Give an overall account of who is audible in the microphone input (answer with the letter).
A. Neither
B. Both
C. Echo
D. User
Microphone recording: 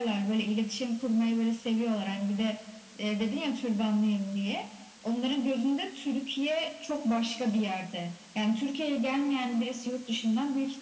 C